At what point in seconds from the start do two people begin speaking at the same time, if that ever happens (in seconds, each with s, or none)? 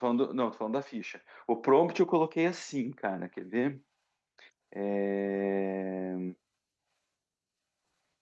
none